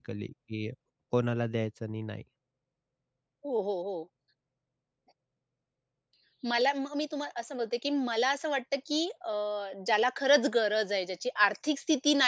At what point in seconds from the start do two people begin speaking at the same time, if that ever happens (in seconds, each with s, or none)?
none